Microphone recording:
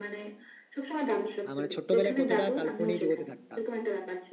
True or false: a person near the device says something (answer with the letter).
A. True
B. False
A